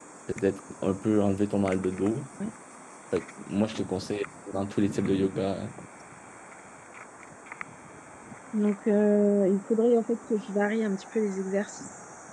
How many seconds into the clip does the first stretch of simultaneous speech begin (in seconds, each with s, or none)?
none